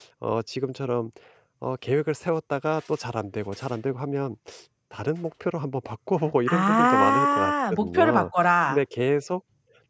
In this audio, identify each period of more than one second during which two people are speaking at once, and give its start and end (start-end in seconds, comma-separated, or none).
6.5-8.3